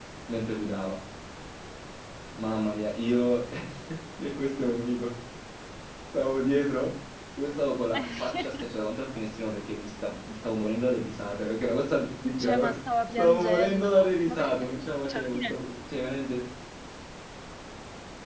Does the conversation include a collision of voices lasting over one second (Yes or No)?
Yes